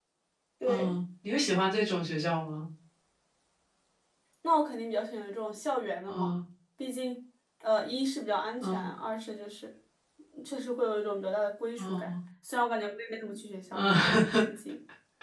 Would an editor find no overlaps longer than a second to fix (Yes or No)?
Yes